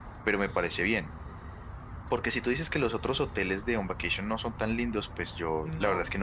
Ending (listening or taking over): listening